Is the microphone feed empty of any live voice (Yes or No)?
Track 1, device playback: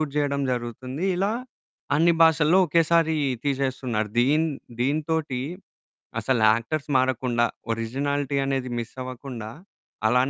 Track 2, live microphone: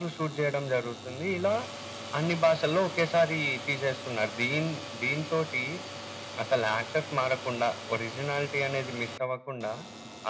Yes